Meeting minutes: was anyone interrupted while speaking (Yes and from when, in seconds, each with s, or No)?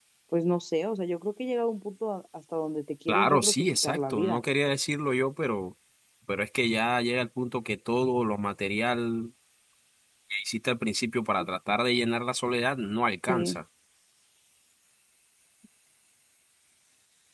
Yes, from 3.1 s